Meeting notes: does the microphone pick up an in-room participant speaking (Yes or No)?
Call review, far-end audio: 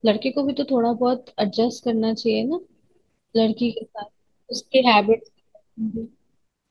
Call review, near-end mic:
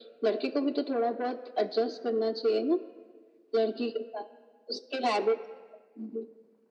No